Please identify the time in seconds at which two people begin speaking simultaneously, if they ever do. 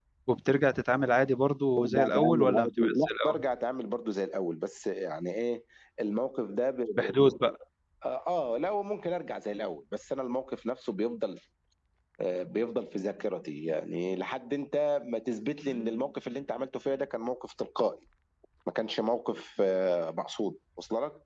1.8 s

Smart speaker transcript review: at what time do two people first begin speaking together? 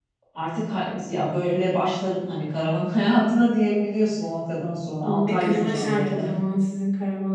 5.0 s

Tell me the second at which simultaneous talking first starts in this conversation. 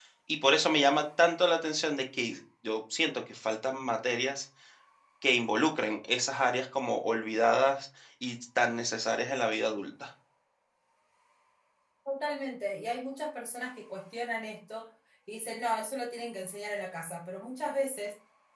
none

